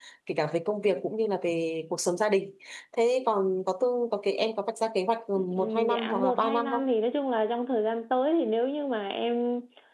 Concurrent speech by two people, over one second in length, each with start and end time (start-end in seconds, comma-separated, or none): 5.3-6.8